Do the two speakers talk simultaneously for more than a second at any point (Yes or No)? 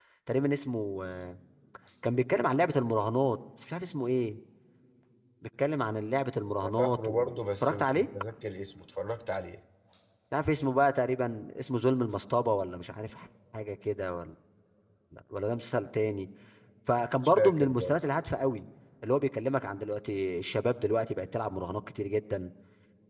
Yes